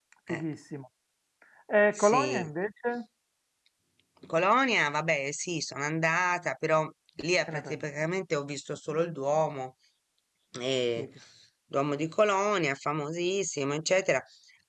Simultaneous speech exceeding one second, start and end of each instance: none

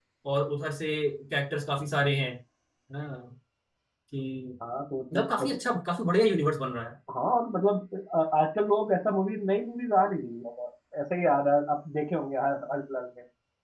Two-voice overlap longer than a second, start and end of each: none

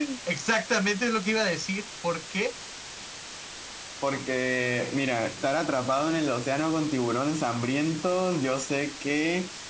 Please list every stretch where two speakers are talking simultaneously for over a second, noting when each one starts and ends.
none

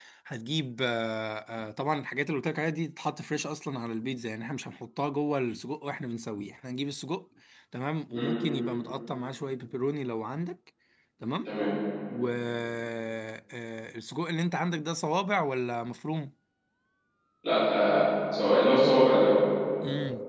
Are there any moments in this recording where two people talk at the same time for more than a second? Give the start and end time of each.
none

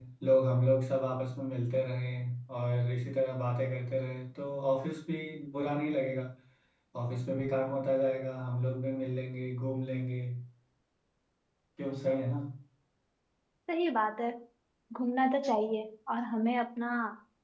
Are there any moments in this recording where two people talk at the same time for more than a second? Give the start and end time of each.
none

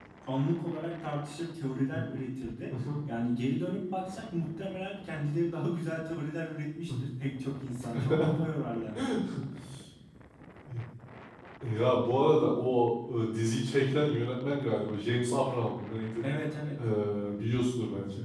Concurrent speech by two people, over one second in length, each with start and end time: none

